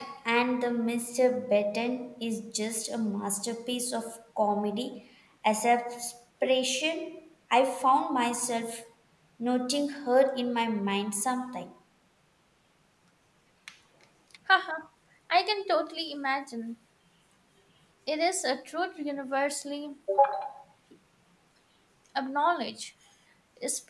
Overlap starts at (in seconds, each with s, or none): none